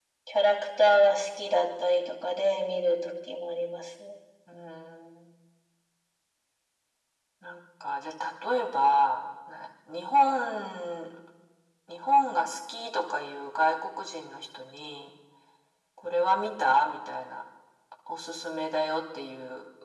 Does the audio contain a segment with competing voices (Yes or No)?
No